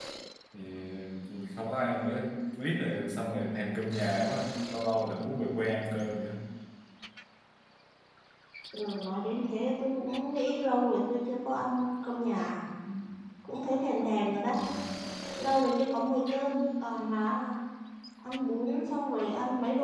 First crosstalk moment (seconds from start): none

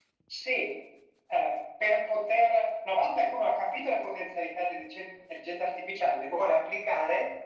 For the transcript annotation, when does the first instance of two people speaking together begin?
none

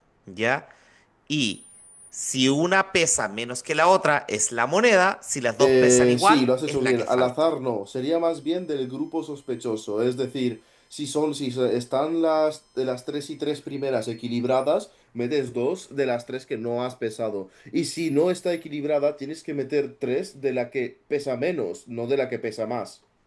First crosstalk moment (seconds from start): 5.6 s

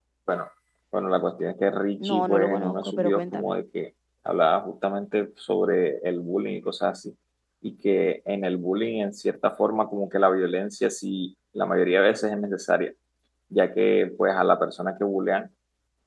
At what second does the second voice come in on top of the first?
2.0 s

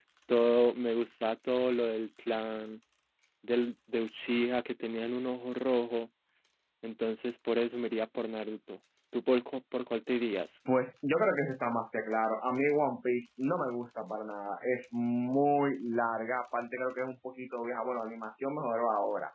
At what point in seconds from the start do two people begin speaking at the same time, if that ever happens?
none

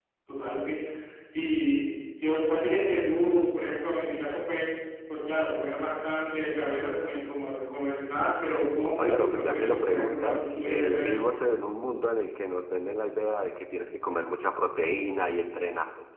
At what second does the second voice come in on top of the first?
8.8 s

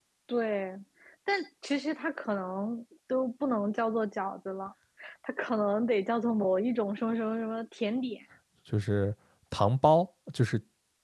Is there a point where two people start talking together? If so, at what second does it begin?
none

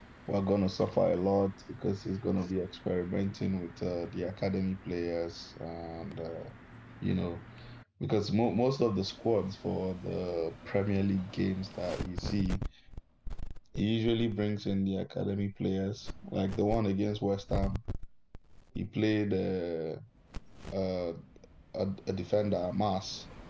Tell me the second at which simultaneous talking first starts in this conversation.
none

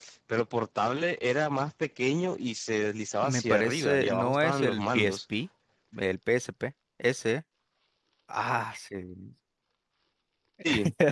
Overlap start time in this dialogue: 3.2 s

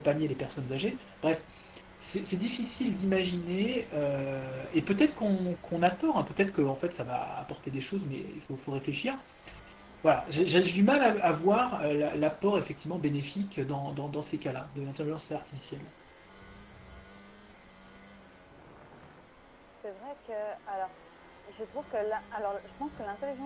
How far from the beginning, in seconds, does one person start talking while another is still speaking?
none

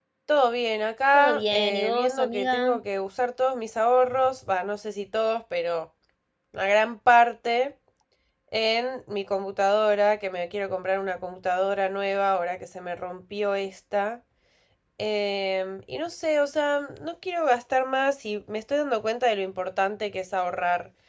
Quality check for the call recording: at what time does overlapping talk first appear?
1.1 s

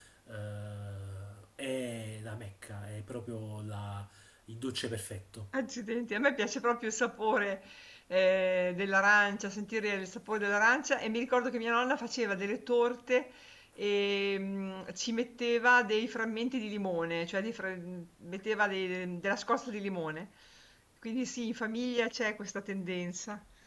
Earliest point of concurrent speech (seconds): none

